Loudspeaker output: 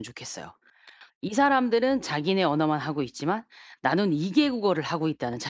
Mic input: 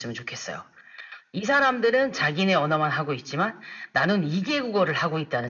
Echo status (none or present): present